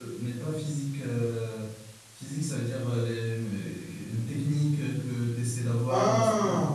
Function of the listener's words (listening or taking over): listening